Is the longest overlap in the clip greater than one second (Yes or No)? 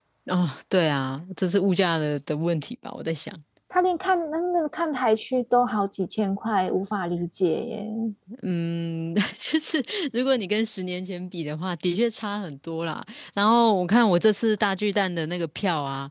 No